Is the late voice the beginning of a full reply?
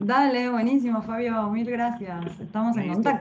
Yes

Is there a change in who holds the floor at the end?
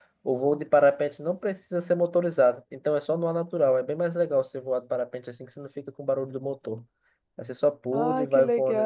Yes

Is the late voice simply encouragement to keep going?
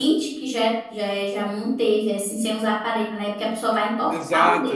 No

